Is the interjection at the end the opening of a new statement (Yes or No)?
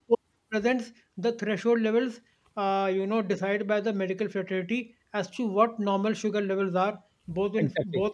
No